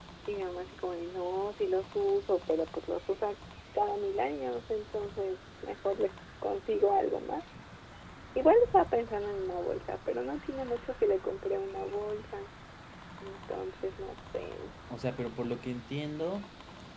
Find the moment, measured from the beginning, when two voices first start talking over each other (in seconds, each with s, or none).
none